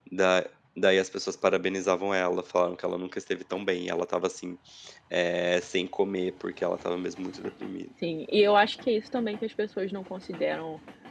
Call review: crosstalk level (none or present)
none